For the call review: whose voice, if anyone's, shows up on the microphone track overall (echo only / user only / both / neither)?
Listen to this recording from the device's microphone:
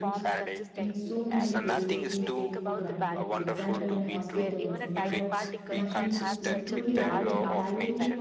both